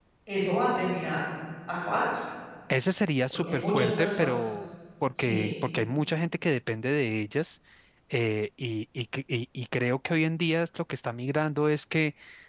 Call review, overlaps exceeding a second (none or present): present